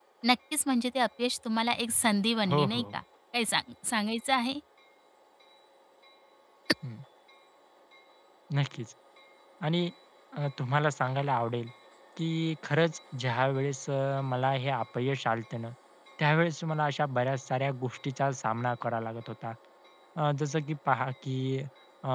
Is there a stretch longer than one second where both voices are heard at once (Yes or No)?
No